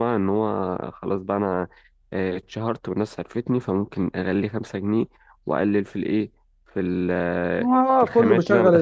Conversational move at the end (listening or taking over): taking over